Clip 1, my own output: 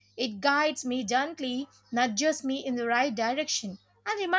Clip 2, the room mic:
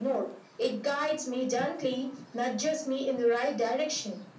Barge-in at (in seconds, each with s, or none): none